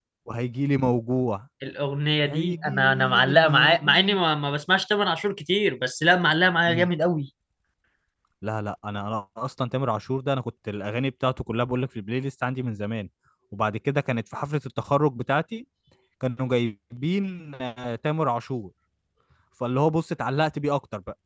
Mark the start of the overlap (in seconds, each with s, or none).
2.2 s